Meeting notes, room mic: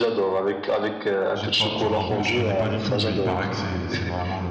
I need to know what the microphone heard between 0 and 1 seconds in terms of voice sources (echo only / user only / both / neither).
echo only